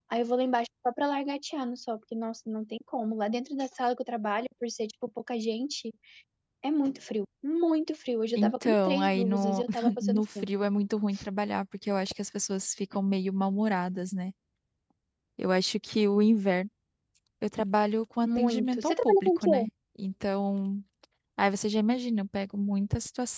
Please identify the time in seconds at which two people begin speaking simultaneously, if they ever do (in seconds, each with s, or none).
8.4 s